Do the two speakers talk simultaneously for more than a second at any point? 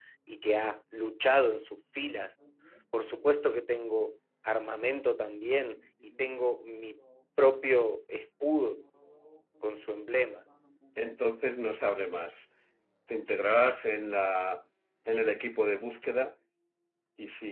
No

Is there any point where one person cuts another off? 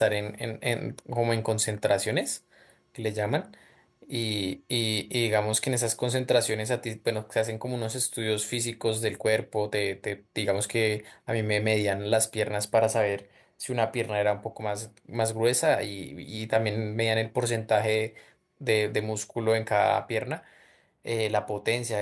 No

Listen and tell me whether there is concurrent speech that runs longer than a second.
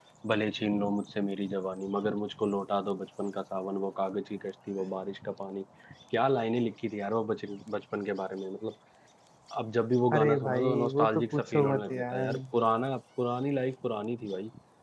Yes, from 10.2 s

